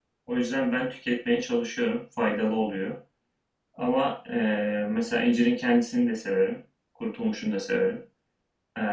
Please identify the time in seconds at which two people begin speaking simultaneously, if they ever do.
none

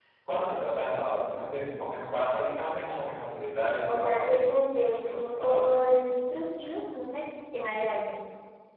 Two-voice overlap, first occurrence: 3.9 s

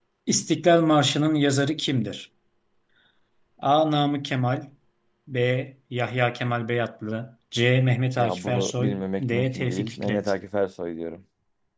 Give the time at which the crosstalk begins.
8.2 s

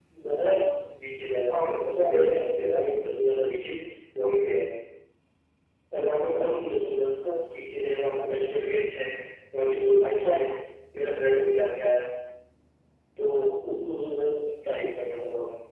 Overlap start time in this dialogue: 1.5 s

